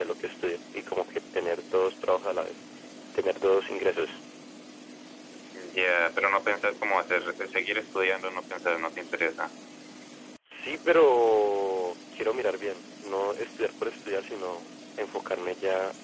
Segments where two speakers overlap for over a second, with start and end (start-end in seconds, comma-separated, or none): none